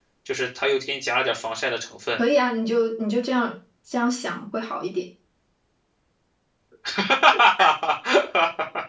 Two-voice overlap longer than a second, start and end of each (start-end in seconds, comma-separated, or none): none